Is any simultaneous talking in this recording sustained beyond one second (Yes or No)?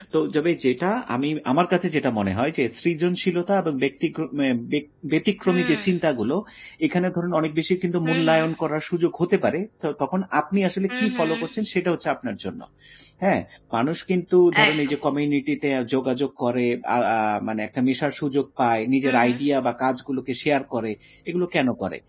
No